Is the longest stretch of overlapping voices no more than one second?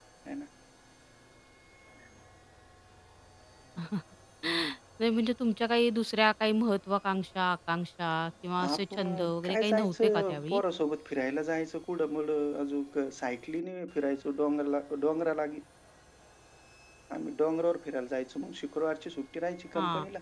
No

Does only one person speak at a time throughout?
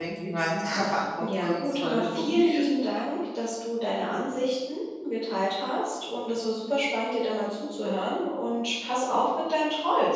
No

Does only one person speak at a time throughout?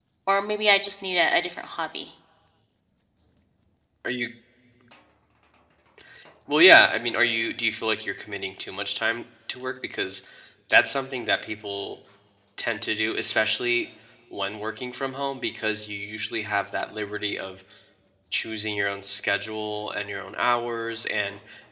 Yes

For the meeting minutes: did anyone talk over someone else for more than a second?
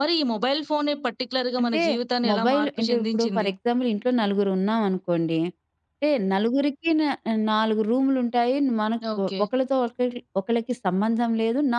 Yes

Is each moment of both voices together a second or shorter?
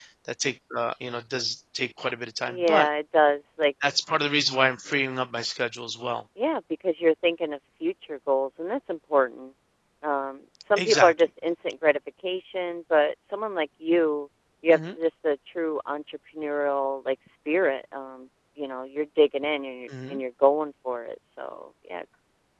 Yes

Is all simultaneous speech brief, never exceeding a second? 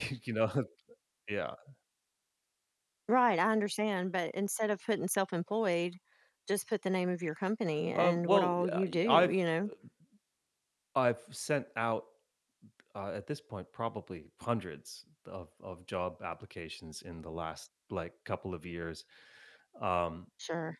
No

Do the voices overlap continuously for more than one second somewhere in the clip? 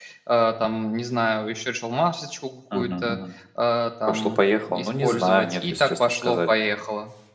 Yes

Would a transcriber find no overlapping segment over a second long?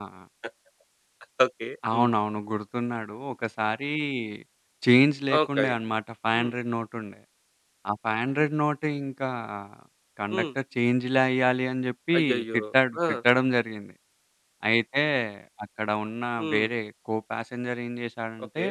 Yes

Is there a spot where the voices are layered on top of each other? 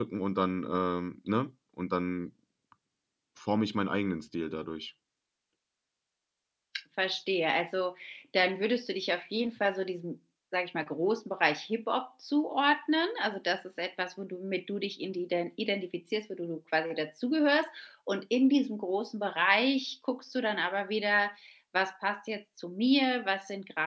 No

